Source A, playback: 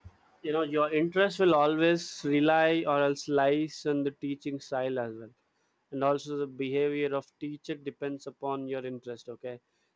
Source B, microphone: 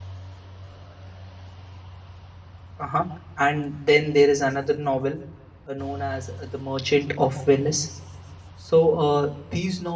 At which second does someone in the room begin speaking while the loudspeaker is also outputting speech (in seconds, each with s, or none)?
2.8 s